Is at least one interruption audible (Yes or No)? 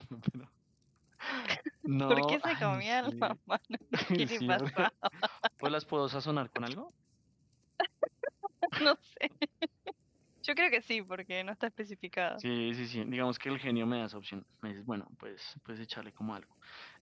Yes